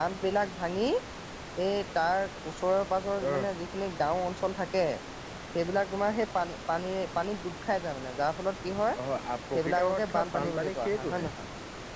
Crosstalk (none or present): present